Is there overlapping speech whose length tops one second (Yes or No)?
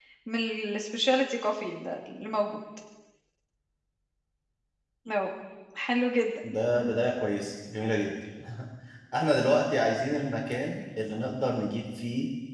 No